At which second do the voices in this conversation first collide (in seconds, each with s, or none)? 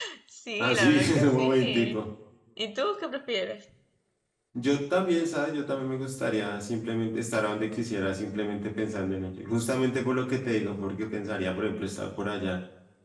0.6 s